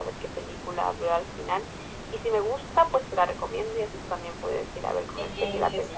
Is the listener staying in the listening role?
No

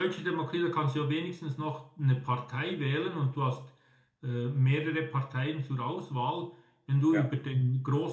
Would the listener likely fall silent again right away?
Yes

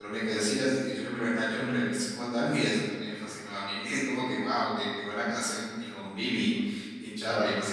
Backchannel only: Yes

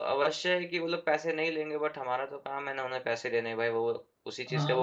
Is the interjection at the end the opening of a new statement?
Yes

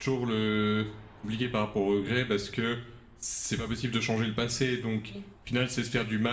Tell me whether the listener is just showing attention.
Yes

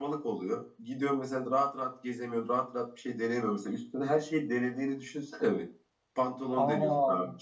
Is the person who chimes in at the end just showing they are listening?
Yes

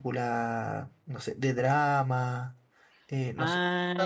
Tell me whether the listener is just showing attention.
Yes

